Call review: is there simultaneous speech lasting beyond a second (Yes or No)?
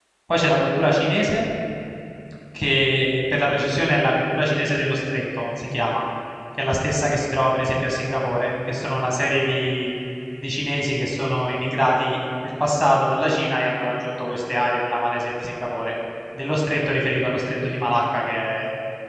No